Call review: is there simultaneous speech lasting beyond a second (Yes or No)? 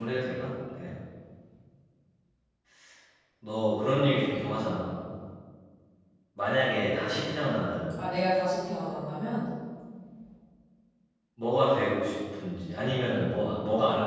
No